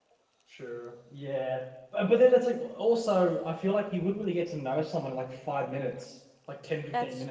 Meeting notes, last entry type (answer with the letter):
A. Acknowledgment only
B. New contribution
A